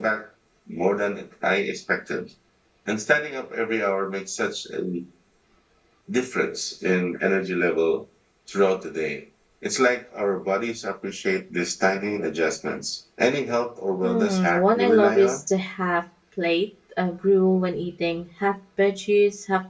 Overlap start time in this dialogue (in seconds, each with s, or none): 14.0 s